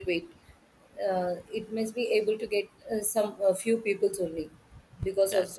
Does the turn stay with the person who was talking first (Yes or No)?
Yes